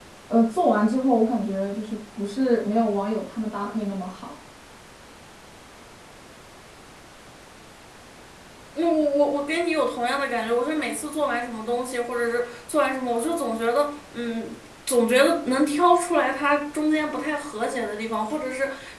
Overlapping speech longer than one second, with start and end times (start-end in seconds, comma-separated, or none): none